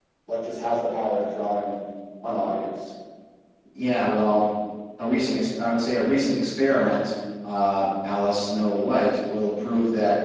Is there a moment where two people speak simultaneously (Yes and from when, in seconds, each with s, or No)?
No